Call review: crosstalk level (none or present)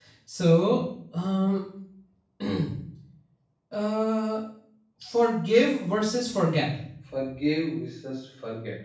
none